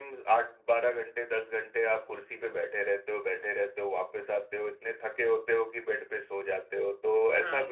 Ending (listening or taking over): taking over